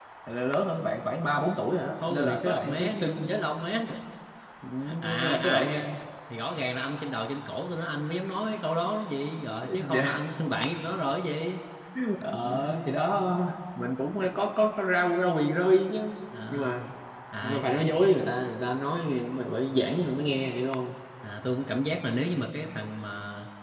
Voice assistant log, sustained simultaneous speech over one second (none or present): present